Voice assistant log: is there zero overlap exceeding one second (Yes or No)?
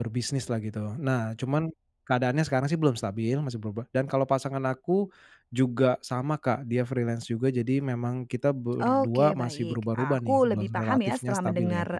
No